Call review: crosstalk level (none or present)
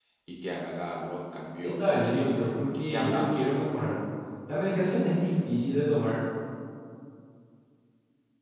present